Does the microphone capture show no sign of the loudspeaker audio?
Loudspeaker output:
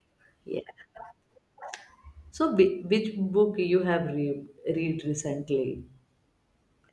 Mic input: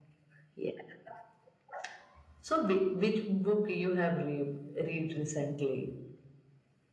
No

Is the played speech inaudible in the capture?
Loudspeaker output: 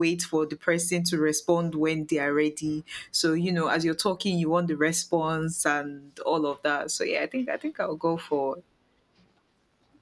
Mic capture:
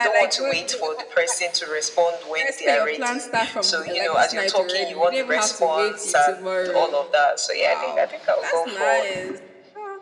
No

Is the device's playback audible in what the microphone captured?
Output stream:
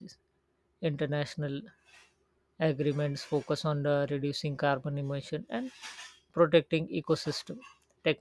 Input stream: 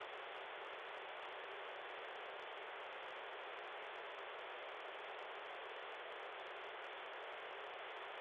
No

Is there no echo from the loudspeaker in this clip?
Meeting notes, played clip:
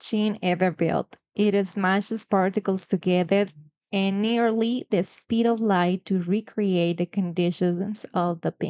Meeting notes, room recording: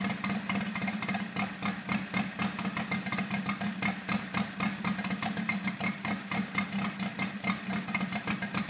Yes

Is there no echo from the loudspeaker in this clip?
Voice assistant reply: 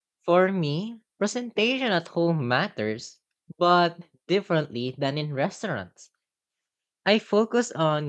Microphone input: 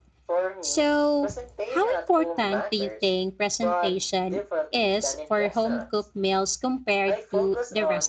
No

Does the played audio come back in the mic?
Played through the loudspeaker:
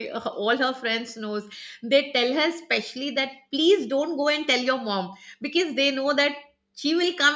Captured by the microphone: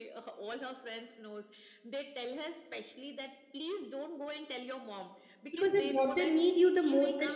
Yes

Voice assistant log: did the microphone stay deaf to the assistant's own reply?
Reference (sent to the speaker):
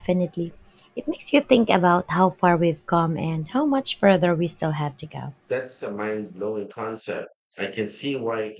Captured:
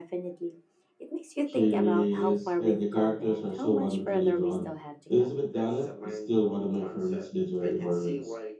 No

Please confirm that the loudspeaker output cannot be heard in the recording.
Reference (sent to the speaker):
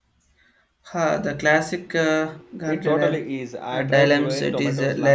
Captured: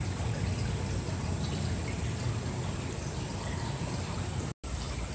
Yes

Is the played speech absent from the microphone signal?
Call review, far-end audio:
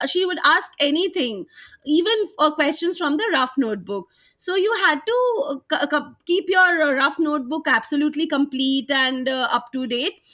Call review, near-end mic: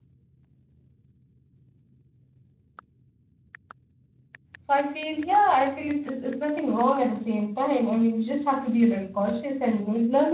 Yes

